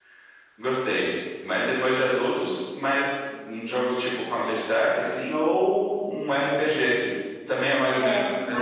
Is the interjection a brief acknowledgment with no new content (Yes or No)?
No